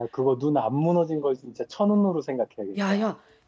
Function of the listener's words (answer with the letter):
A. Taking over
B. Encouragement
A